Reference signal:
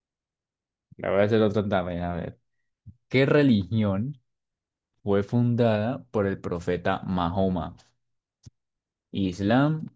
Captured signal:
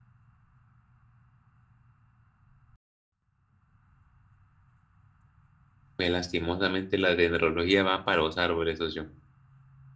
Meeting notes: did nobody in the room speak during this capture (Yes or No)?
No